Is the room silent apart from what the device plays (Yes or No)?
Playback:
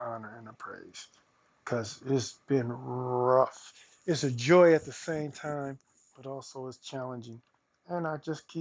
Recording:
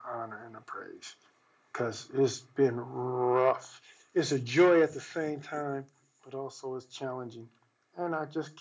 Yes